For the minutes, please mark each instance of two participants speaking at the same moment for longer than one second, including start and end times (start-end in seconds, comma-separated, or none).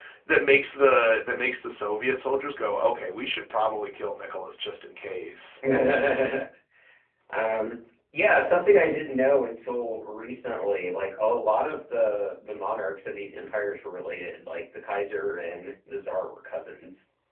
none